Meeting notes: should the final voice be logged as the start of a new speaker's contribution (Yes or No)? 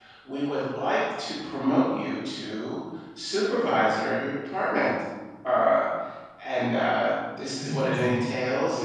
No